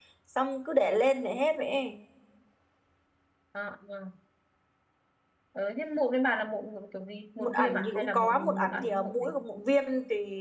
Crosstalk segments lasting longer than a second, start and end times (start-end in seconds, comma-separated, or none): 7.4-9.3